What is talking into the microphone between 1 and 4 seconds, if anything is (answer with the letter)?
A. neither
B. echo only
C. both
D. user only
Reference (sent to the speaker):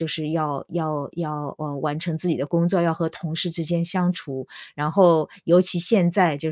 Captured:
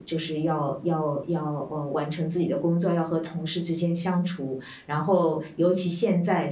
B